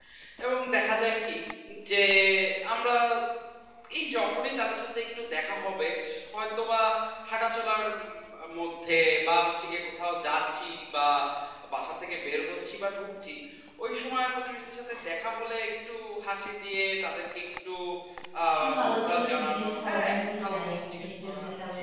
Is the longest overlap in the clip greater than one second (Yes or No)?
Yes